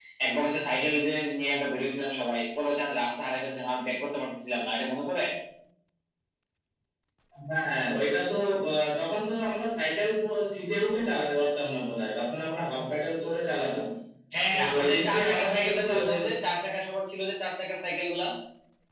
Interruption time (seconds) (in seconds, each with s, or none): 14.5 s